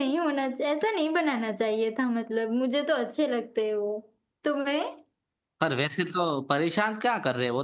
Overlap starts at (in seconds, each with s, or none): none